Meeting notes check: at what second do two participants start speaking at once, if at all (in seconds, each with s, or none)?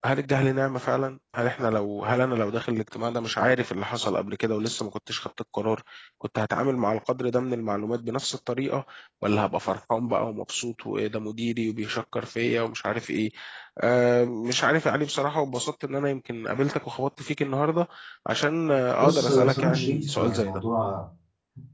19.0 s